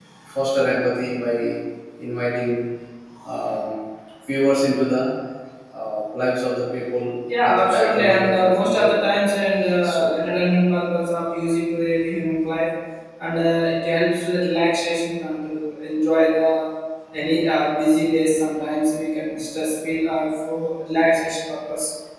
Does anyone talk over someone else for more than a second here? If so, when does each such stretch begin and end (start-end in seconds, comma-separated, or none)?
7.4-9.1